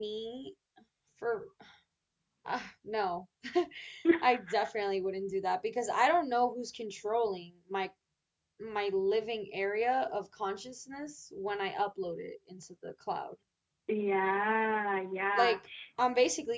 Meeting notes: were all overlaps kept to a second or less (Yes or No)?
Yes